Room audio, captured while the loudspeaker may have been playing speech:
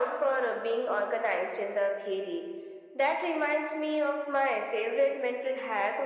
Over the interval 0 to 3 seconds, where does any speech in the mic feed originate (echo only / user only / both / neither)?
echo only